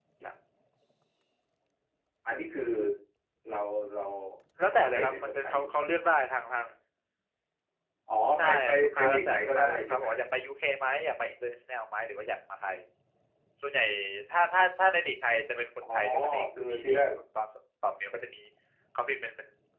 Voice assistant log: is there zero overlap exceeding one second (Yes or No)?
No